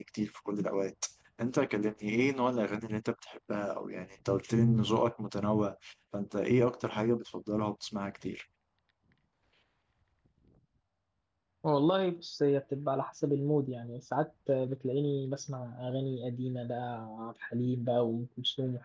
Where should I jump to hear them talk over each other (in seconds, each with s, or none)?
none